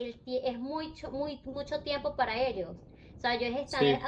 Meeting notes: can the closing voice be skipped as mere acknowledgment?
Yes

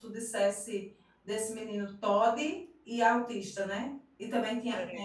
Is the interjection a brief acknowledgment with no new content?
Yes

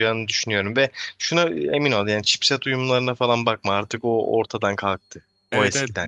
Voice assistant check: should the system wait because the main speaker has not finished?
No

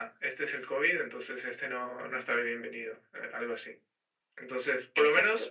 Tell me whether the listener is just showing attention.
Yes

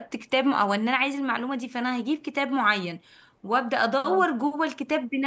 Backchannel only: Yes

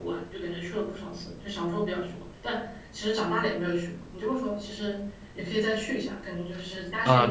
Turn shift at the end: Yes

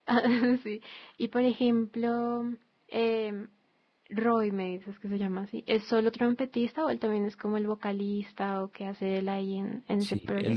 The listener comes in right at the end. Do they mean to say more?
Yes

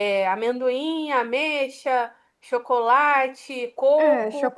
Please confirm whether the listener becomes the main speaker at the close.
Yes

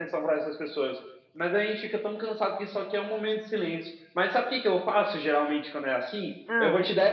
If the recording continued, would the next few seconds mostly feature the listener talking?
No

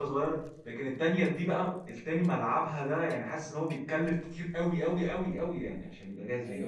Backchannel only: No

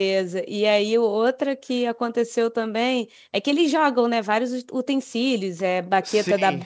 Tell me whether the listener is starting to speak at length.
No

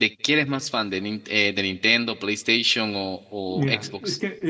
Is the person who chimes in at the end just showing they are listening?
No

